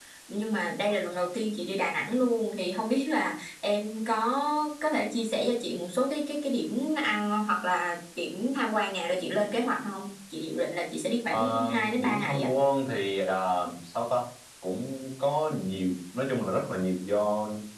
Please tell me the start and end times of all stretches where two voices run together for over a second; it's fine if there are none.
11.3-12.5

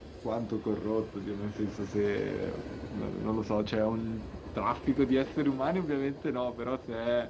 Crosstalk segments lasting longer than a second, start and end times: none

